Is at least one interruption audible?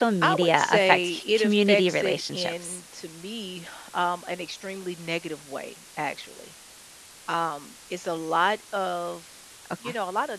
Yes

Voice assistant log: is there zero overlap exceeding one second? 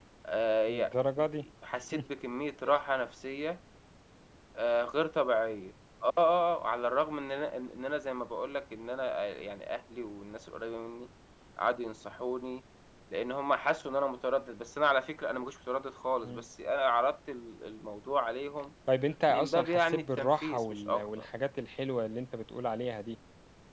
No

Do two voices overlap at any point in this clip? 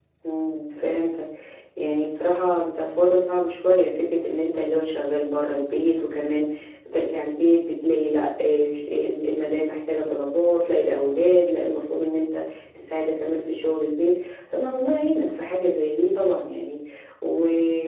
No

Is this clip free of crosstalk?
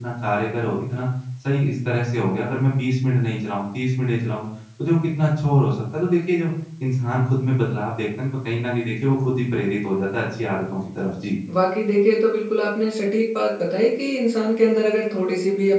Yes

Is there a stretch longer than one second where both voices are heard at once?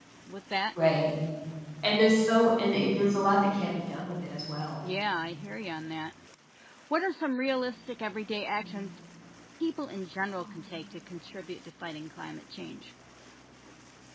No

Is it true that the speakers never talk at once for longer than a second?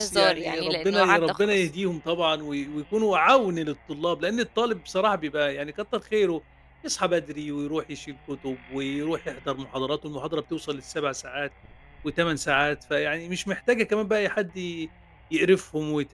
No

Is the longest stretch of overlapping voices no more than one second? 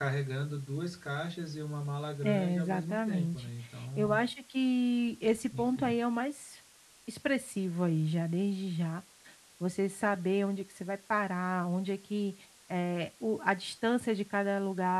No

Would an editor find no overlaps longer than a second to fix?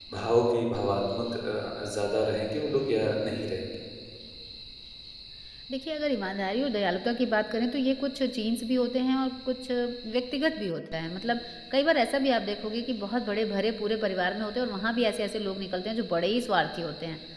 Yes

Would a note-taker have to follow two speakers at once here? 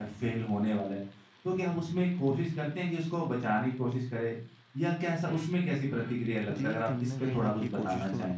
Yes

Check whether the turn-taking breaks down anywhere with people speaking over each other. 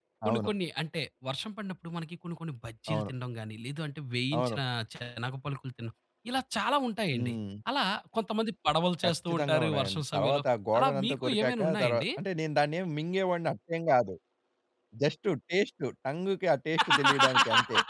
Yes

